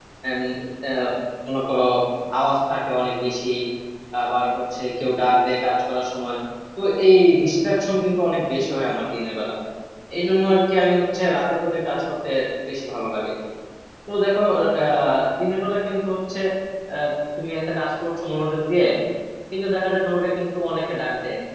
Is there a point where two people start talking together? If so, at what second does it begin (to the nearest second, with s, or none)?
none